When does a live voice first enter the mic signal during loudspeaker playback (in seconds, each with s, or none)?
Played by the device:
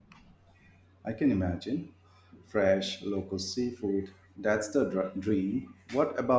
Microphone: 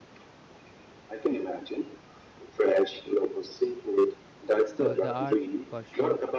4.8 s